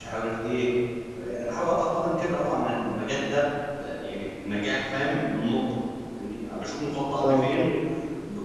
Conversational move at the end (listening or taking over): listening